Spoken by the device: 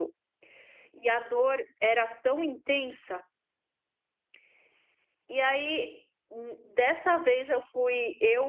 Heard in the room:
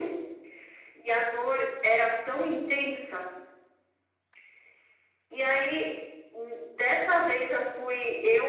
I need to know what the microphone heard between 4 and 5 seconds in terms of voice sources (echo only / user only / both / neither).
neither